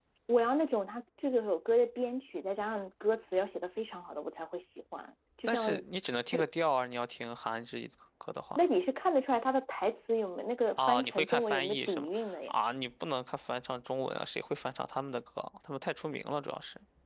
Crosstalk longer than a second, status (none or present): present